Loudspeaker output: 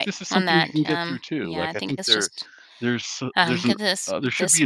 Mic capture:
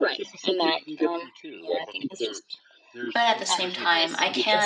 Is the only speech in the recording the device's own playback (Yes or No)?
No